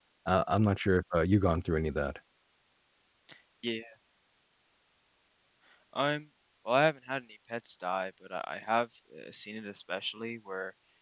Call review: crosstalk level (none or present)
none